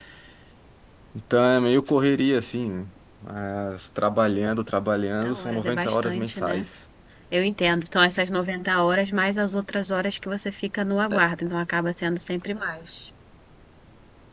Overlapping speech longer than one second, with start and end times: 5.2-6.7

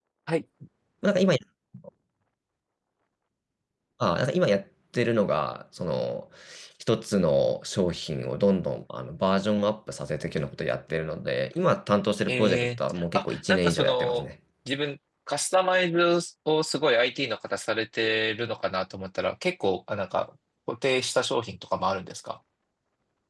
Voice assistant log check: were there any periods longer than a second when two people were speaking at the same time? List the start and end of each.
12.3-14.2

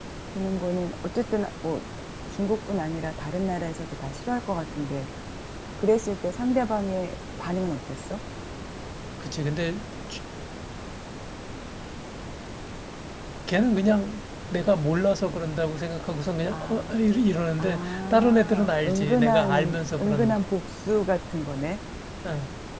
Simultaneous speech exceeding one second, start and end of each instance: 17.6-20.4

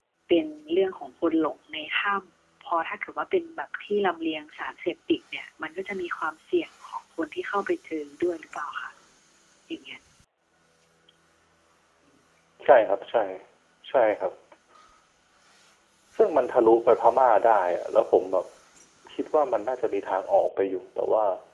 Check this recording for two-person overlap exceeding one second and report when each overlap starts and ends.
none

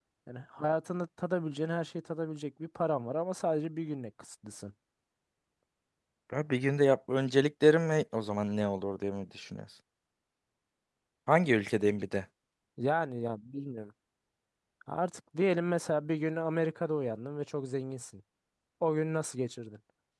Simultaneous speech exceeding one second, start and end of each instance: none

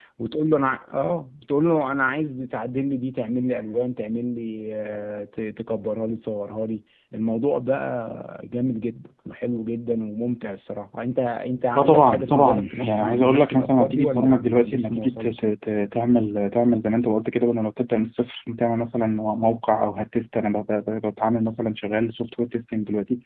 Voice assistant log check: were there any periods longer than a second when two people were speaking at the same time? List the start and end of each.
11.7-15.4

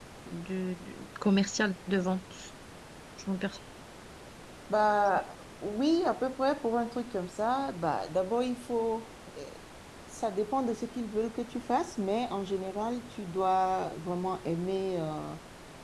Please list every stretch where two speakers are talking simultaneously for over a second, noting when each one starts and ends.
none

